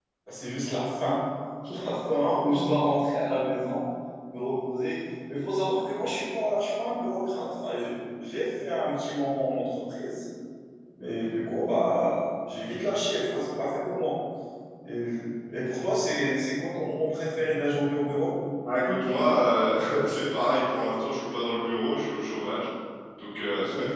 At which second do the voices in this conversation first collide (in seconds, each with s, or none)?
none